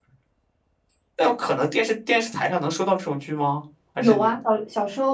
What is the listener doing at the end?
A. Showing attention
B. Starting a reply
B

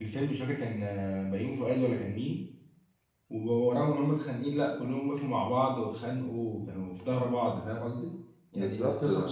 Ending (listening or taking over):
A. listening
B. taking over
A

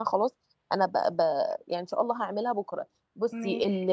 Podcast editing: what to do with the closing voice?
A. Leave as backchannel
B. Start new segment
A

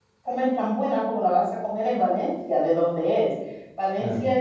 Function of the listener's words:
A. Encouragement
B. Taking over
A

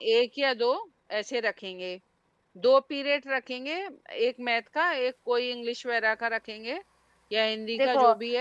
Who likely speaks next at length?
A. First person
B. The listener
B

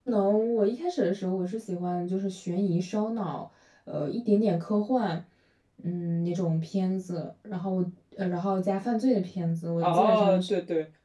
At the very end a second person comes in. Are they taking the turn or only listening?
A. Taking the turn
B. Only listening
A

